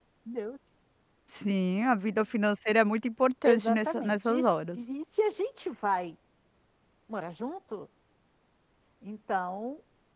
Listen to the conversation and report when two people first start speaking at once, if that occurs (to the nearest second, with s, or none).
3 s